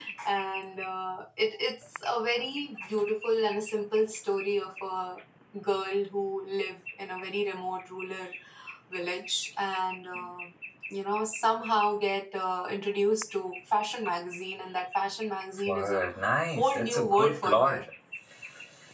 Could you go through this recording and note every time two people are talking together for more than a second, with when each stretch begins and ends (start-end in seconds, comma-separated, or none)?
16.6-17.9